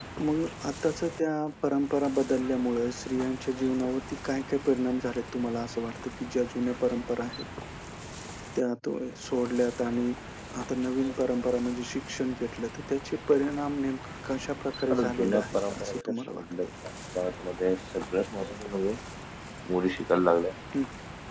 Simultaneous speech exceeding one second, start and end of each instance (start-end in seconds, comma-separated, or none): 14.9-16.7